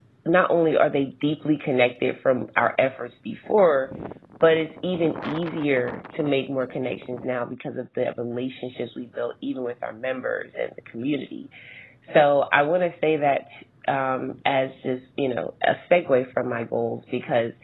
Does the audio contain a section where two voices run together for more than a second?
No

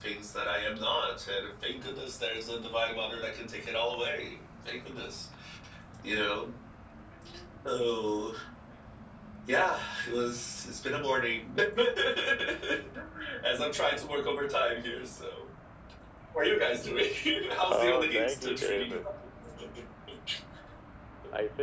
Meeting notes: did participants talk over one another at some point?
Yes, from 17.7 s

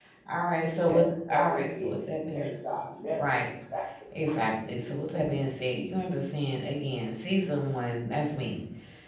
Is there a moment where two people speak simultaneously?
Yes, from 0.7 s

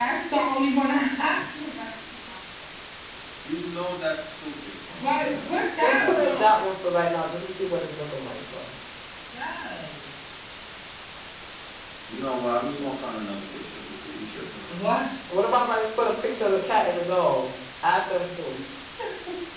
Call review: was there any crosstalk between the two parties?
Yes, from 4.9 s

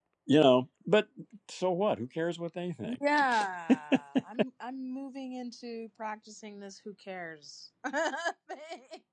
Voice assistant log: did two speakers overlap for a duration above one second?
No

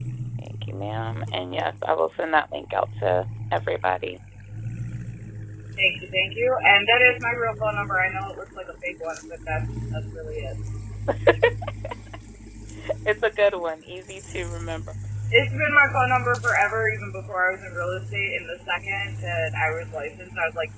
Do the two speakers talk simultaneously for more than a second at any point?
No

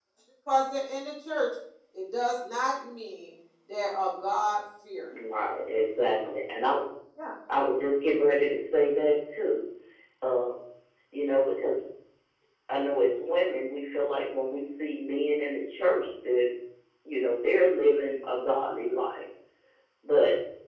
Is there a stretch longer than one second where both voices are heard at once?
No

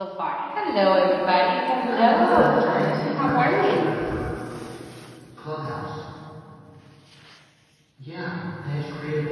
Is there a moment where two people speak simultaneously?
Yes, from 1.9 s

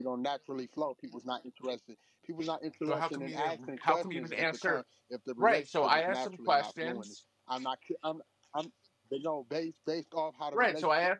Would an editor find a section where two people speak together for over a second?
Yes, from 2.9 s

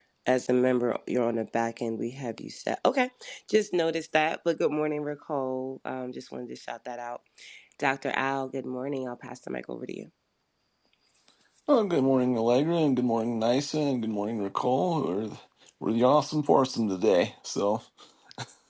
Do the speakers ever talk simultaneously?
No

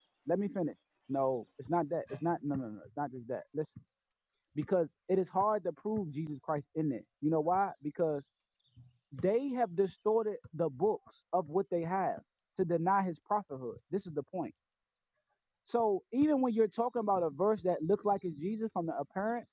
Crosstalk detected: No

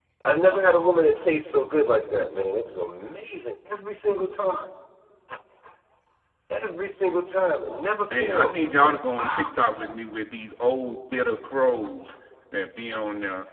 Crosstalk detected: Yes, from 8.1 s

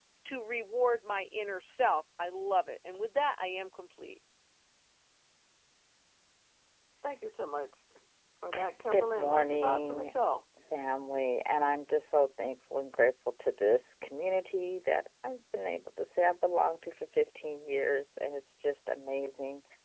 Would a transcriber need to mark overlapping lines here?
Yes, from 8.9 s

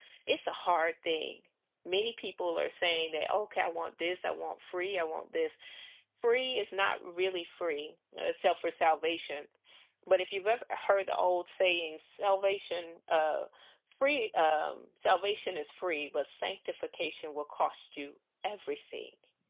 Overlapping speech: No

